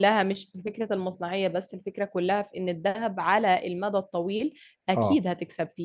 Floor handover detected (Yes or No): No